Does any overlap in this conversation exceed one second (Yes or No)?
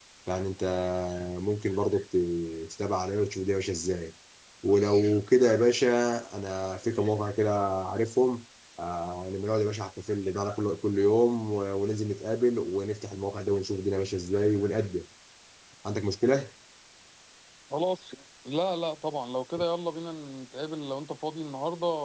No